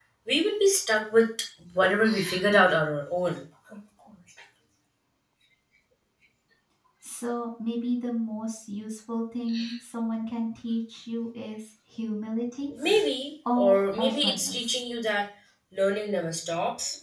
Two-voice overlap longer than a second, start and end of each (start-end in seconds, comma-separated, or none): 13.6-14.8